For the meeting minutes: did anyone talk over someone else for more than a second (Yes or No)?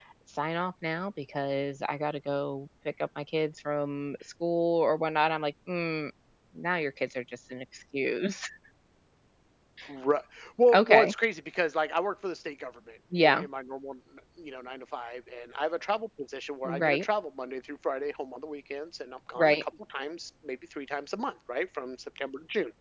No